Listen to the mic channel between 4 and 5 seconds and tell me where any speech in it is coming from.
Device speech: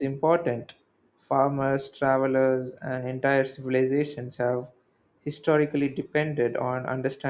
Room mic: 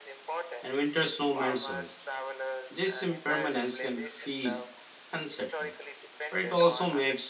both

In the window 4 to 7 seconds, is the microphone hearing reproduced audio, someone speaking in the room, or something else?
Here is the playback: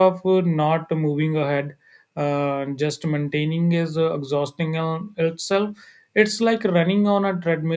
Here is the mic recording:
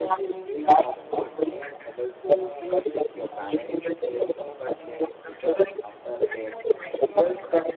both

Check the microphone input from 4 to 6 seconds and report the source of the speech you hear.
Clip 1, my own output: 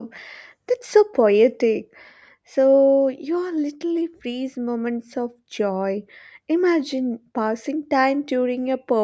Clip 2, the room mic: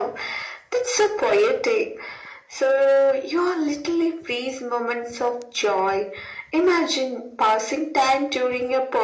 echo only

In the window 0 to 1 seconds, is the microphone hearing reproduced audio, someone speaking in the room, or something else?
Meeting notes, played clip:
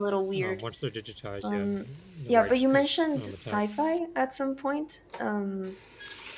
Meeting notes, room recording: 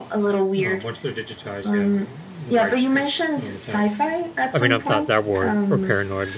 echo only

